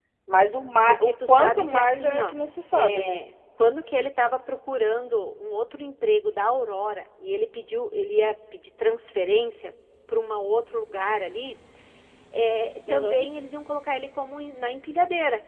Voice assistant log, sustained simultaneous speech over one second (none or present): present